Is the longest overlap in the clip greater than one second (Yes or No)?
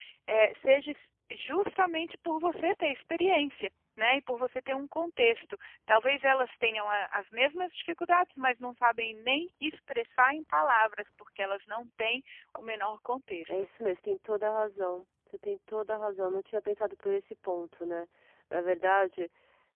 No